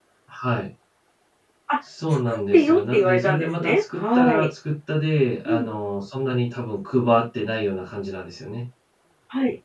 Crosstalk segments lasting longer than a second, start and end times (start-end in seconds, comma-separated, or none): 2.1-4.5